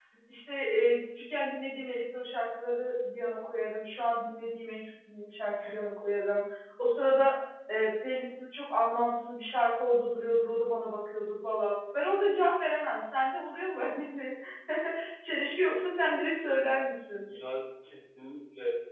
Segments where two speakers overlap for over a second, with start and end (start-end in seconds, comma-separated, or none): none